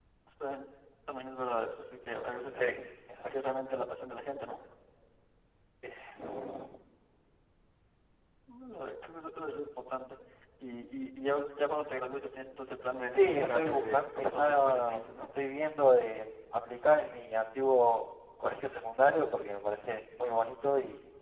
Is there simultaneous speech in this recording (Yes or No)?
Yes